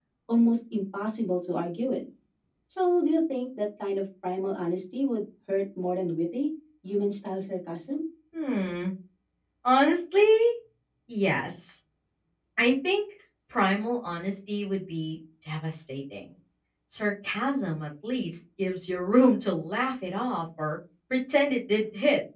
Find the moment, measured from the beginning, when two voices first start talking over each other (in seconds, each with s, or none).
none